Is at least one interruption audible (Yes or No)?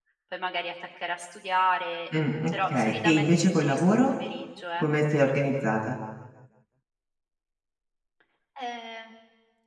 Yes